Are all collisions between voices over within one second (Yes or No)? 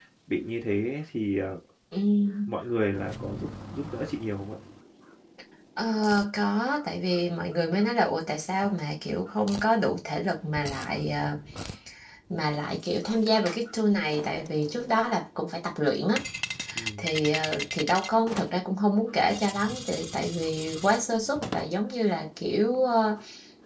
Yes